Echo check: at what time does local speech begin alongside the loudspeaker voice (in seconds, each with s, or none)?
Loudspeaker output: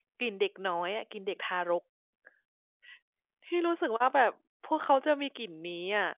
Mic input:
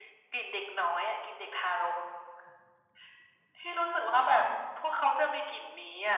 none